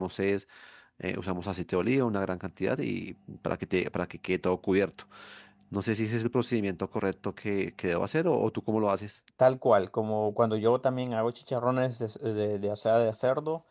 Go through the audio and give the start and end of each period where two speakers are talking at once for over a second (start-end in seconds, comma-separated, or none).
none